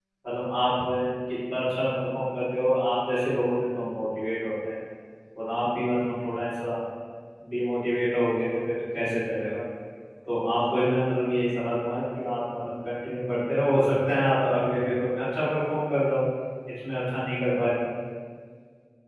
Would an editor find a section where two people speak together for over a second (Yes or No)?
No